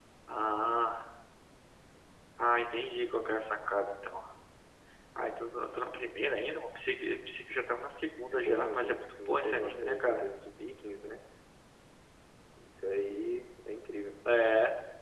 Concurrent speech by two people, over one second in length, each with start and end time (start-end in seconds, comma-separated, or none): 8.3-10.2